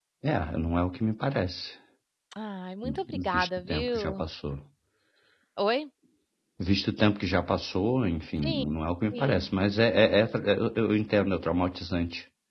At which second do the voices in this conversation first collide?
3 s

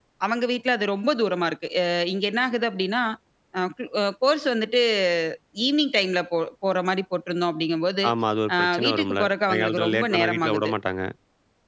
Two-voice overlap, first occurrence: 9 s

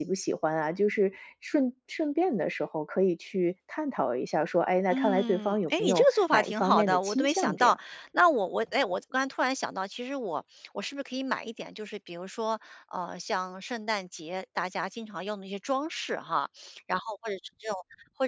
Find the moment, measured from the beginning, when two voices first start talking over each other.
5 s

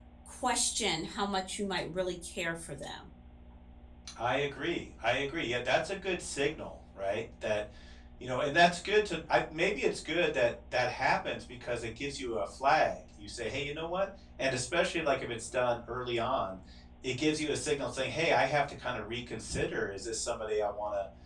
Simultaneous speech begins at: none

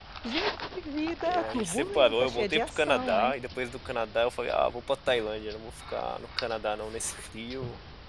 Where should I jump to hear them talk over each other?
1 s

